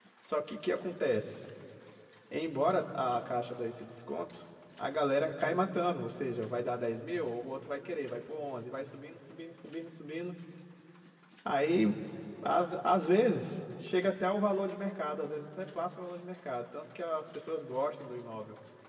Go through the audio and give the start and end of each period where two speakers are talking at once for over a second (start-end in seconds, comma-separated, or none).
none